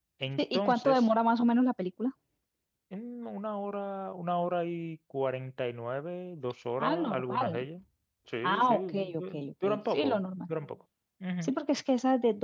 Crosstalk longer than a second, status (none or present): present